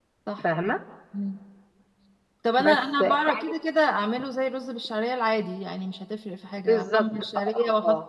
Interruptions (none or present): present